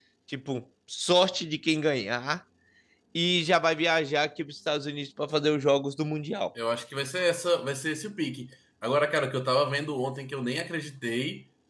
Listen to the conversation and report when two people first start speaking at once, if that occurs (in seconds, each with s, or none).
none